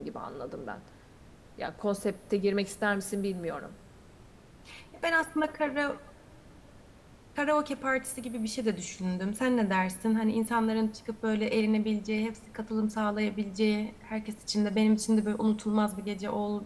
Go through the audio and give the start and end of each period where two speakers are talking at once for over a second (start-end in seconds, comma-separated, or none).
none